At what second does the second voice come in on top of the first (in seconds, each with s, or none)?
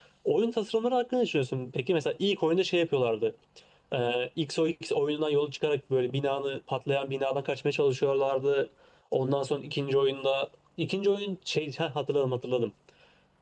none